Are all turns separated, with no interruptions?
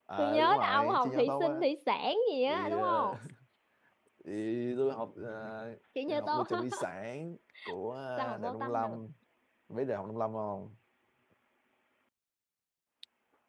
No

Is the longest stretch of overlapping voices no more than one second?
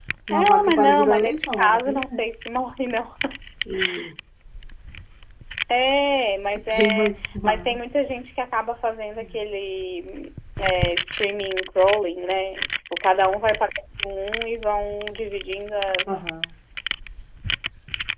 No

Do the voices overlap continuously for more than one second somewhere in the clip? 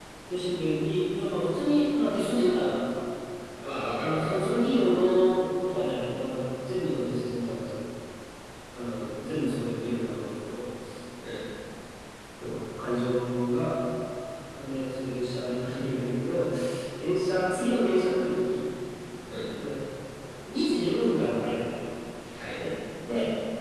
No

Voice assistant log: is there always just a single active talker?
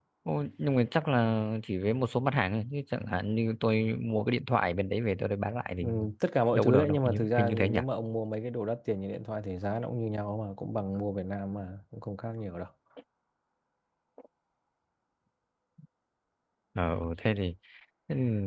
No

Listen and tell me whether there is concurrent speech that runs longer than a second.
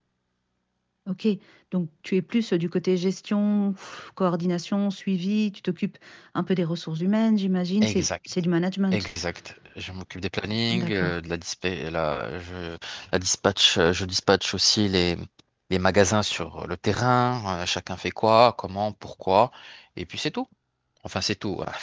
No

